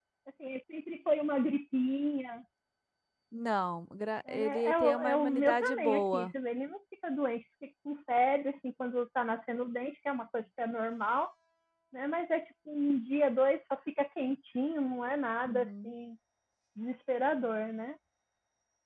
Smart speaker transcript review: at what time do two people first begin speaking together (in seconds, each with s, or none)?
4.3 s